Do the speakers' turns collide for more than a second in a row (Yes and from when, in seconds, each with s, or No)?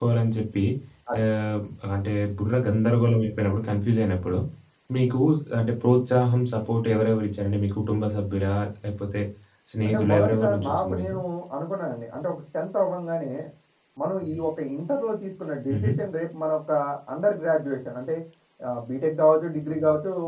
Yes, from 9.8 s